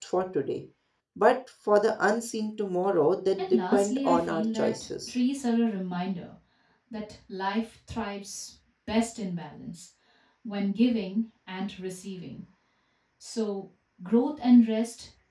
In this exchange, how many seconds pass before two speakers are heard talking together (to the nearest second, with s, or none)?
3 s